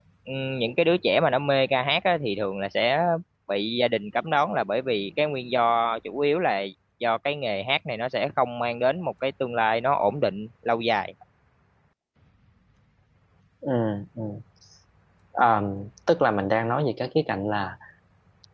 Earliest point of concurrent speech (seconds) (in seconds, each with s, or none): none